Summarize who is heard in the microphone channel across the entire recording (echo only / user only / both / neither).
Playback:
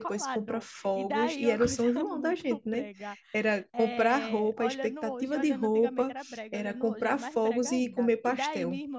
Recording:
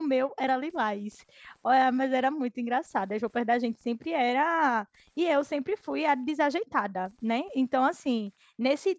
user only